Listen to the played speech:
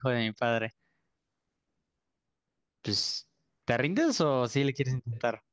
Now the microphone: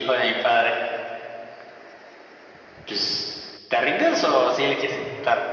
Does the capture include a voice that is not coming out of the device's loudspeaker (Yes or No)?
No